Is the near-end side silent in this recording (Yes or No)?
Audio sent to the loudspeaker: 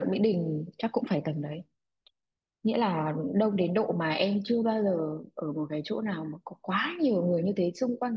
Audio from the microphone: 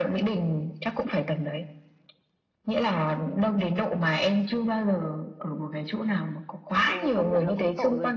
No